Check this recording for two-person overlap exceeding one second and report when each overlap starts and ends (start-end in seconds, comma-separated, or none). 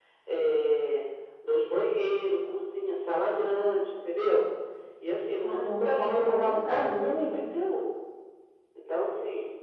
5.4-7.4